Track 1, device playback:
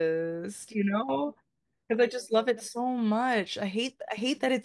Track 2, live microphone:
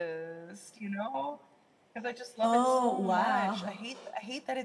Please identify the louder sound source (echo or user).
user